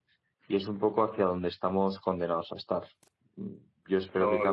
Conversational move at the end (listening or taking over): listening